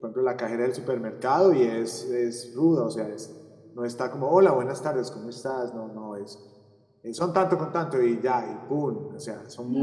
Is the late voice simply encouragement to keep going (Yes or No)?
No